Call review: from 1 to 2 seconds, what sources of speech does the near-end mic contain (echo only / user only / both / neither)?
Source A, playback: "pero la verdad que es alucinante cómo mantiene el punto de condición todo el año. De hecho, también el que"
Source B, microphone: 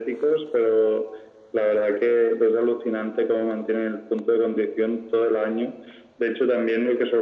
echo only